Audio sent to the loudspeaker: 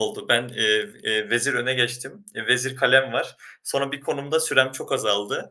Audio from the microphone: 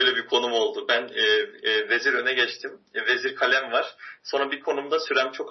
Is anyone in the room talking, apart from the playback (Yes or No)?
No